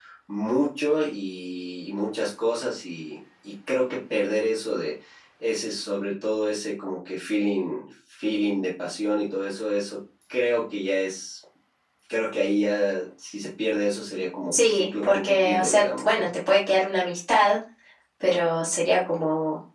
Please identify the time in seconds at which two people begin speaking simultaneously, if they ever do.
14.5 s

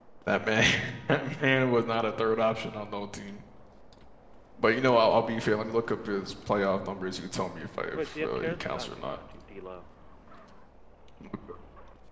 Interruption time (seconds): 8.0 s

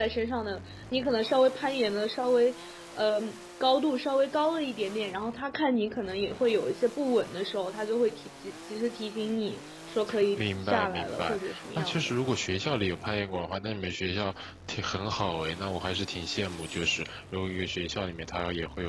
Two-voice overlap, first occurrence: 10.4 s

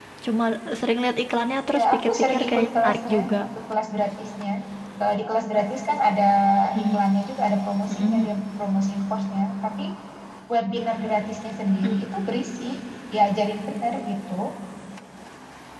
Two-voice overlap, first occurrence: 1.7 s

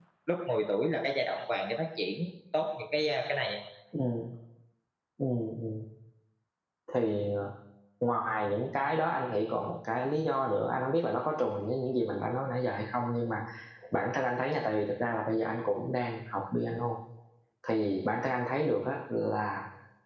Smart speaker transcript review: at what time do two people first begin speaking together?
none

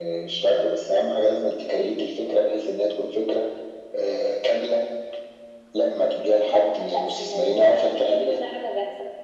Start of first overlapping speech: 6.4 s

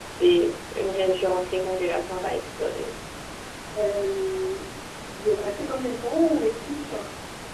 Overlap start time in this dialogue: none

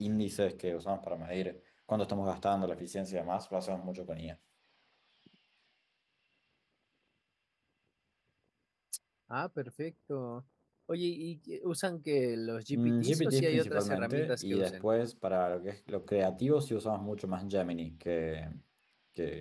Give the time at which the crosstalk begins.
12.7 s

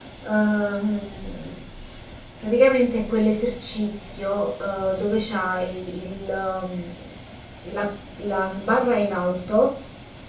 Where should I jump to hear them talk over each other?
none

